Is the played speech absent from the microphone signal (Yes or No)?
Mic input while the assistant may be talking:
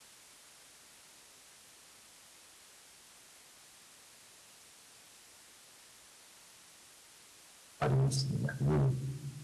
Yes